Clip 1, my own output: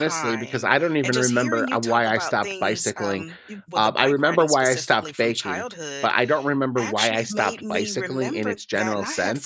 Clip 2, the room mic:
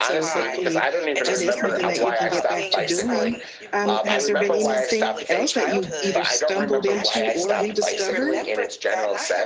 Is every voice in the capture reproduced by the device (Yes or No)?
No